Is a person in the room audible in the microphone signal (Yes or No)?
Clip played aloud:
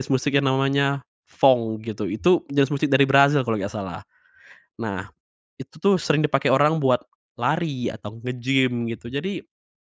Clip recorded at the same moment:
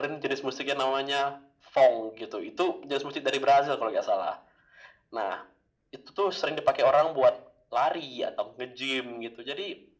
No